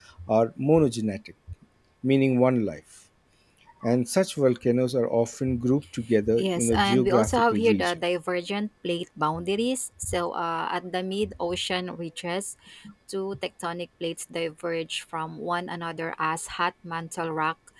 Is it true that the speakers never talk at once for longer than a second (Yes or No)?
No